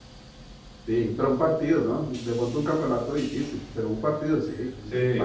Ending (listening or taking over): taking over